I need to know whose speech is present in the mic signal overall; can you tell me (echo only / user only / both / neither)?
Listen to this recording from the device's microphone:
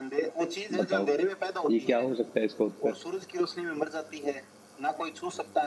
both